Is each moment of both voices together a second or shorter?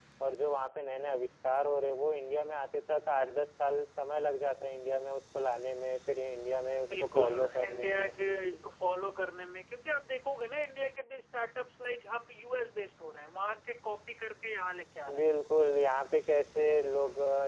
No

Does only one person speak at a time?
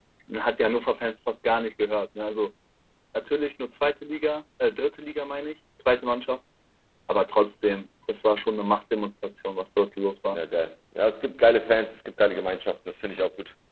Yes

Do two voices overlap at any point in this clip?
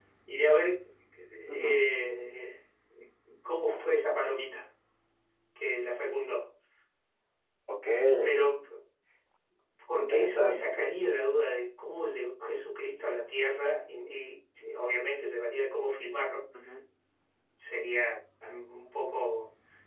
Yes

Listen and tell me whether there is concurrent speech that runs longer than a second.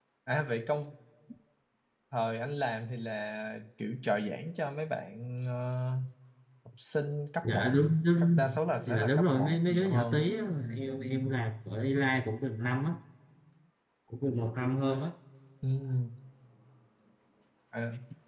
Yes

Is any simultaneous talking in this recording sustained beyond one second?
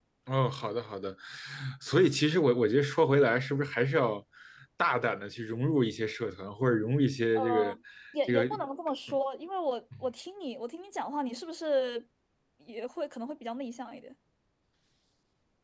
No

